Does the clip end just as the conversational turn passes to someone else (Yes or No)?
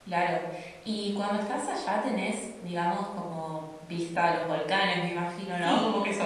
Yes